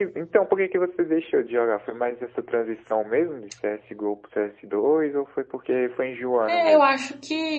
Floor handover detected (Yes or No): Yes